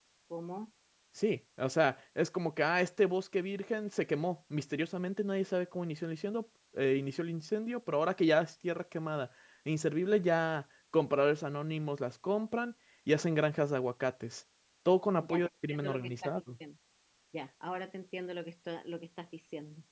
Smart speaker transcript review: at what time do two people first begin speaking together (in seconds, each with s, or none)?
15.2 s